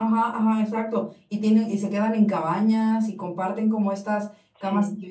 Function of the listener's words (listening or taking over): listening